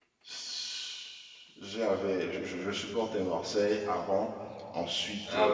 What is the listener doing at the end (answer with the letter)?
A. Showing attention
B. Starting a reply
B